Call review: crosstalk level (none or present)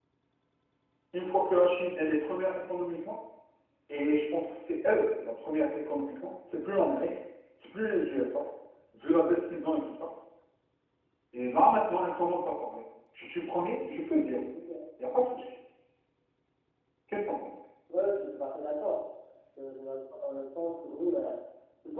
none